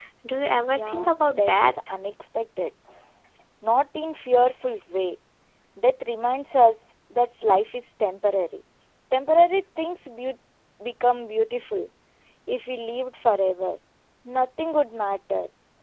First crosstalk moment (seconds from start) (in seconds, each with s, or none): 0.5 s